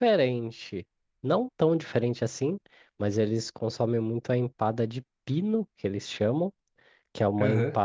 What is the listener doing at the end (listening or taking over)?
listening